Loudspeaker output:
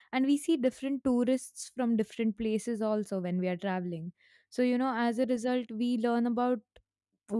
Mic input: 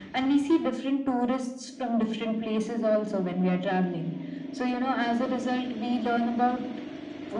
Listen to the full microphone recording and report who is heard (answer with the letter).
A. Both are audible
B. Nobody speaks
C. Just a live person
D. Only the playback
D